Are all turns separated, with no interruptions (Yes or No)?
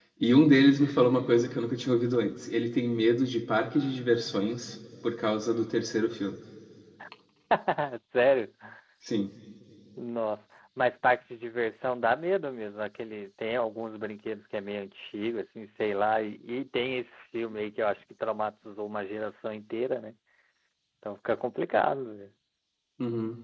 Yes